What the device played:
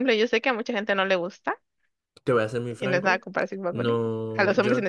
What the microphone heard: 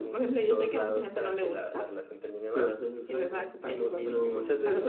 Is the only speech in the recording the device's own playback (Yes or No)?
No